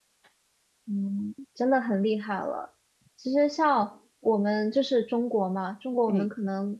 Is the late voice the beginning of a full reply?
No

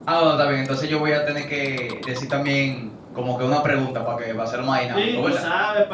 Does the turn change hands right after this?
Yes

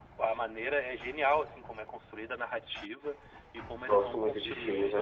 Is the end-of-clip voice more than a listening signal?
Yes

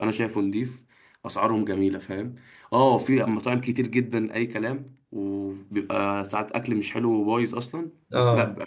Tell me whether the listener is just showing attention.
Yes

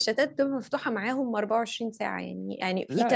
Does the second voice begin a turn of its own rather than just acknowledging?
No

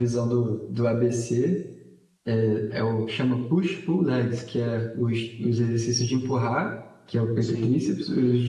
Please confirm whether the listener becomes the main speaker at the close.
No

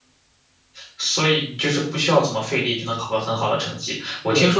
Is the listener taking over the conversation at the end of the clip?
No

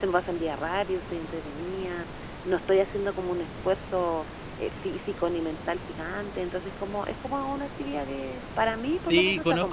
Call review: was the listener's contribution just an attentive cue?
No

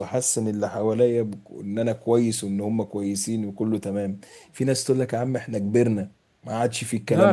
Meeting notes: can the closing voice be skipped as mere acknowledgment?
No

